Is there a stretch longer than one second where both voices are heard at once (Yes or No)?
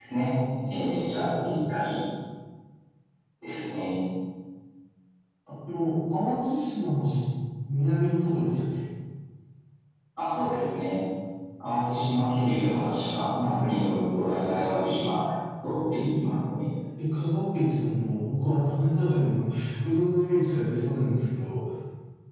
No